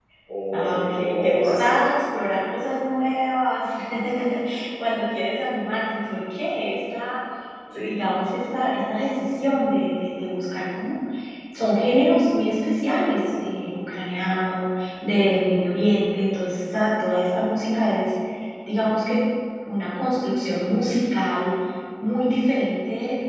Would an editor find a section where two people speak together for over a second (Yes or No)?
Yes